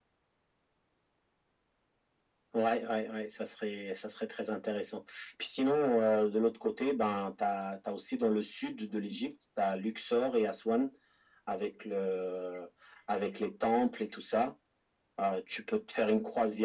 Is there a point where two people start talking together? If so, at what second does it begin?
none

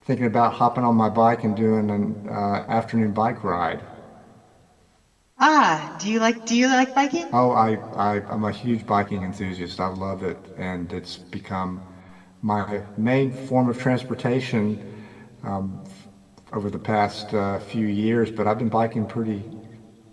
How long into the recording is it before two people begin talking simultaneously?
none

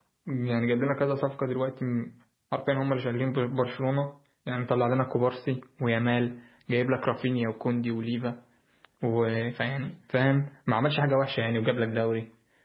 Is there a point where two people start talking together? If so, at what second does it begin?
none

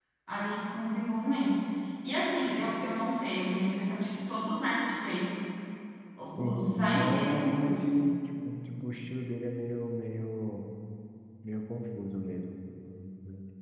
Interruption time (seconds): 6.4 s

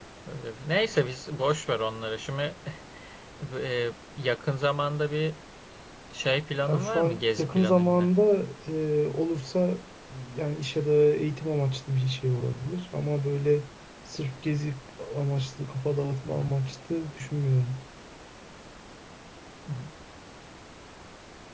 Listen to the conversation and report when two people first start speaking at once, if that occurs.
6.7 s

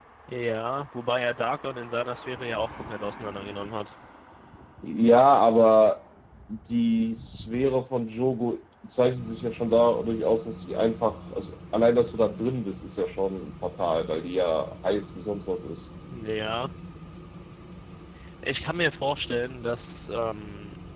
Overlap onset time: none

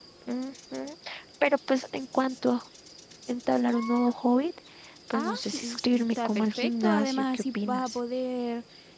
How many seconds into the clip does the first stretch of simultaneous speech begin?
5.1 s

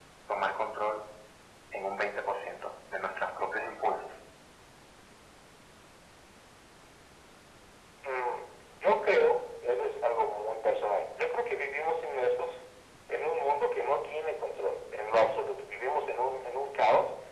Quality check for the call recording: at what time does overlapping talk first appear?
none

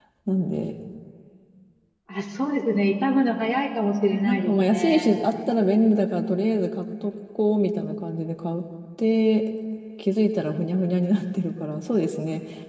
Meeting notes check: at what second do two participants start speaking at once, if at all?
3.9 s

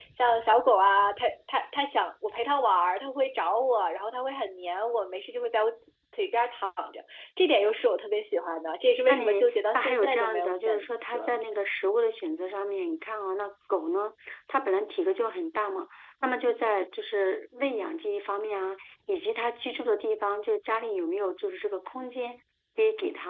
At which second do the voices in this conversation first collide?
9.1 s

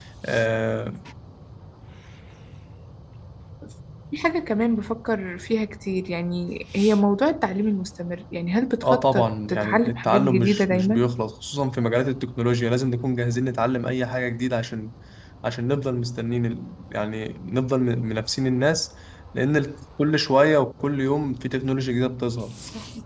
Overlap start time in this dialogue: 8.8 s

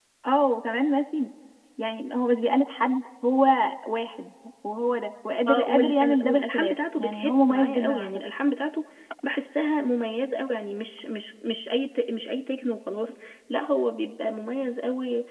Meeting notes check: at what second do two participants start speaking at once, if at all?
5.5 s

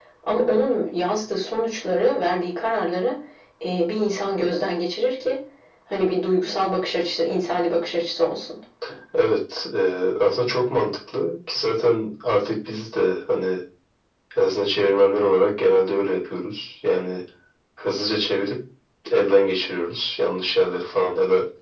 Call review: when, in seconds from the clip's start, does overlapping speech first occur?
none

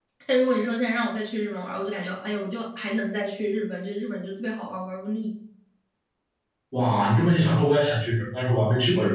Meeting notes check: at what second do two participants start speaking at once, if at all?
none

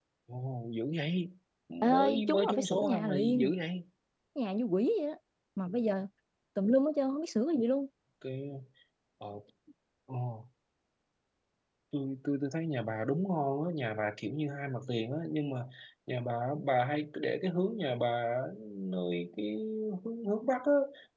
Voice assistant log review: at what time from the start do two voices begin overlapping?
1.8 s

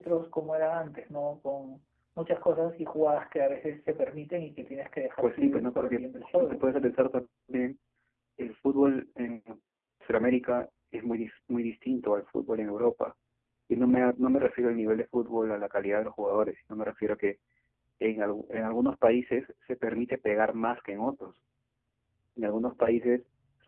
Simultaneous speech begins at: 5.2 s

